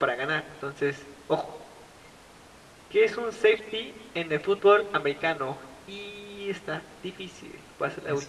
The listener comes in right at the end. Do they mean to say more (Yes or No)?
Yes